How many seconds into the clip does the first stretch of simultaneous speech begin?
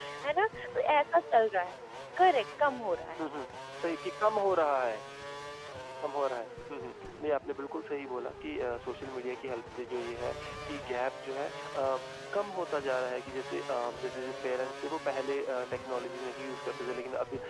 none

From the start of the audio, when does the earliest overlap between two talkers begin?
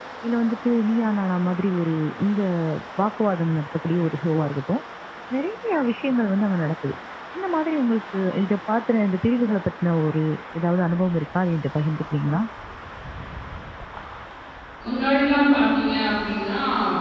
none

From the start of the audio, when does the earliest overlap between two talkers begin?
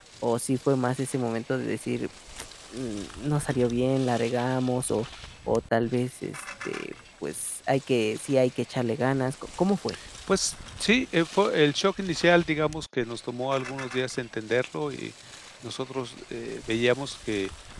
none

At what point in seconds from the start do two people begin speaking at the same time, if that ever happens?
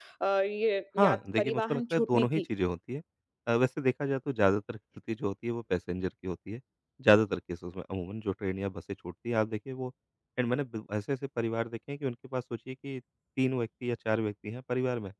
1.0 s

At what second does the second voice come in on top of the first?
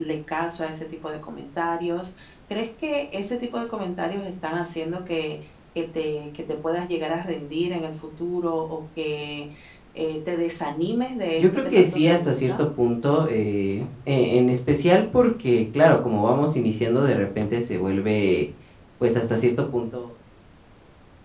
11.4 s

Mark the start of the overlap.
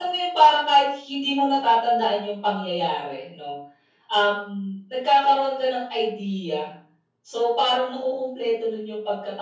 none

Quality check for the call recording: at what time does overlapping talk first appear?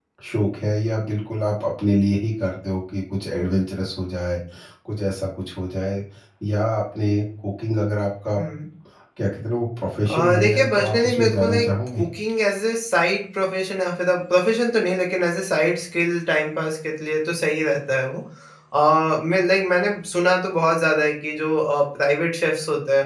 10.1 s

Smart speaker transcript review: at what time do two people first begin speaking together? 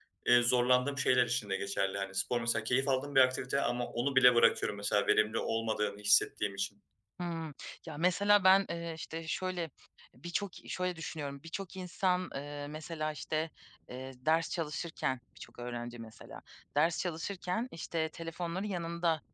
none

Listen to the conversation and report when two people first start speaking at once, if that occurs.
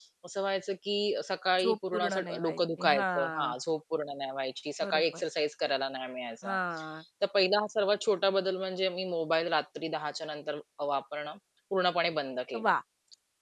1.6 s

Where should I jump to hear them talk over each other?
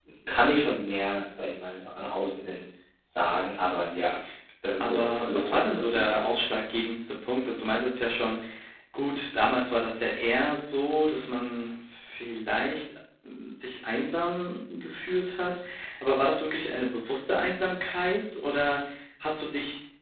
4.8 s

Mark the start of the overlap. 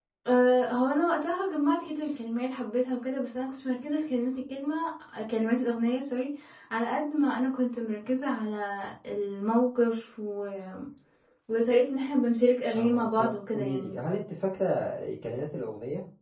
12.7 s

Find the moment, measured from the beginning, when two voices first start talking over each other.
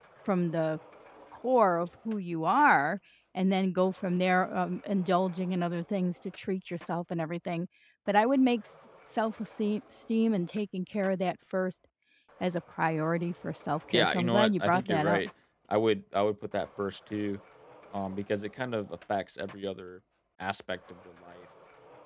13.9 s

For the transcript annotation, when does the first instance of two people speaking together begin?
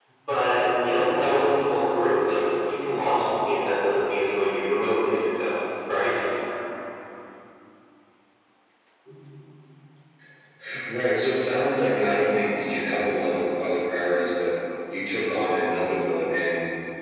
none

